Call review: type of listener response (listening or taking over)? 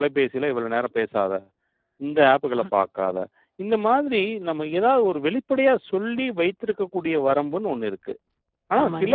listening